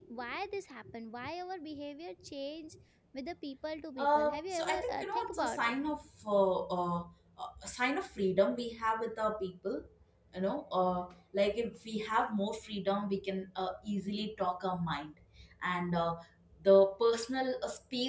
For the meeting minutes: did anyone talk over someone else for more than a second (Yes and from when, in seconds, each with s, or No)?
Yes, from 4.0 s